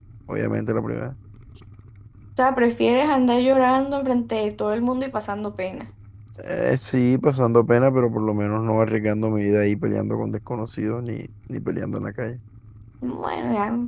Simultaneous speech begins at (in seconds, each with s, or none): none